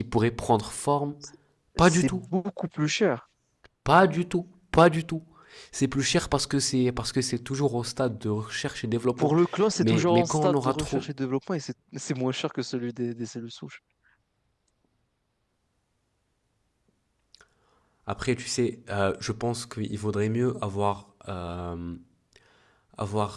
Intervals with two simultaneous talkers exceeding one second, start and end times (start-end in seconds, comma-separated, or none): 9.8-11.1